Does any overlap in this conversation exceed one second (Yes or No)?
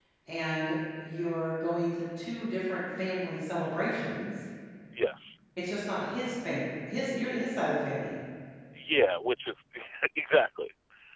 No